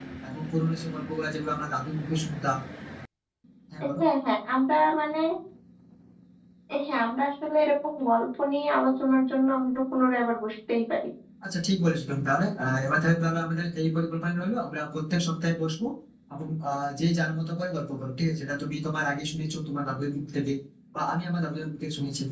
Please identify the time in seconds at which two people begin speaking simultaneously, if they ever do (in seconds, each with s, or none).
none